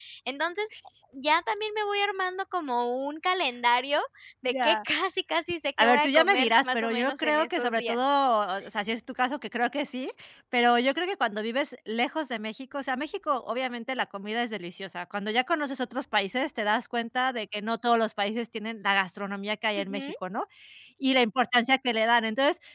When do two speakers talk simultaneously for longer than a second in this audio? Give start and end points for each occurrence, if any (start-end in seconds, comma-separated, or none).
5.8-8.0